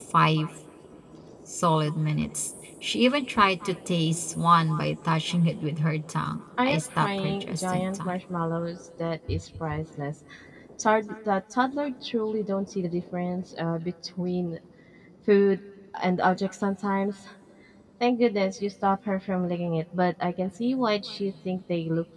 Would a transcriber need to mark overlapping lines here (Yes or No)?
Yes